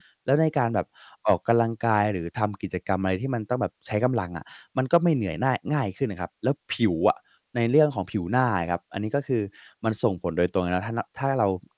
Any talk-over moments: No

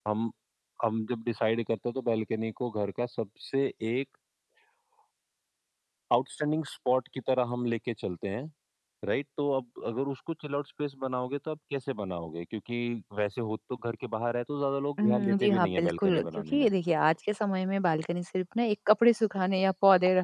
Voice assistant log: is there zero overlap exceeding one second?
No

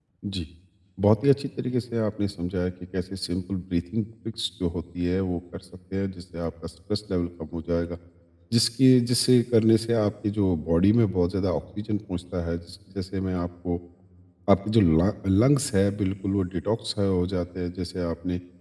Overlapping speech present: No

